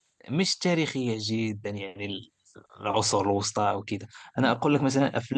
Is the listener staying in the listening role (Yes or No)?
Yes